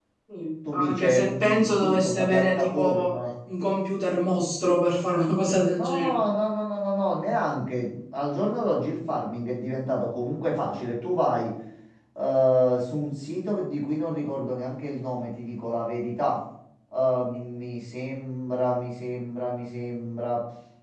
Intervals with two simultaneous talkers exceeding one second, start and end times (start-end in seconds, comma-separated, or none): 0.7-3.1